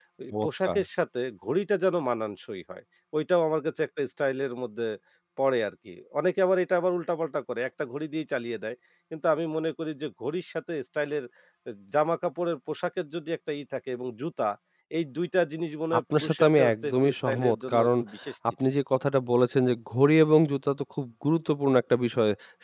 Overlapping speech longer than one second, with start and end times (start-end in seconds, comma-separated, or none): 16.0-17.9